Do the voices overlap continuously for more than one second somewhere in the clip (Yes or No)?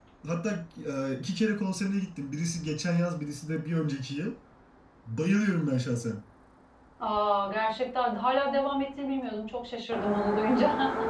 No